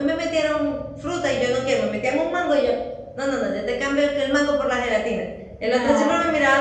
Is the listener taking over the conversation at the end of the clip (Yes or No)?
No